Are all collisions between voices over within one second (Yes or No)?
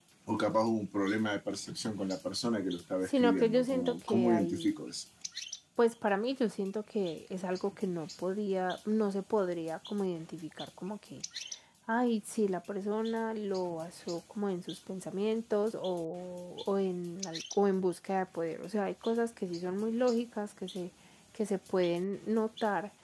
No